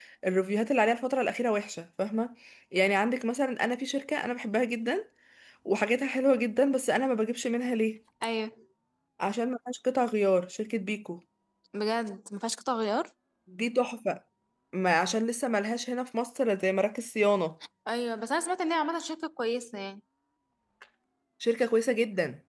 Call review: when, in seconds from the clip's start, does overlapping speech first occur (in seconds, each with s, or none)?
none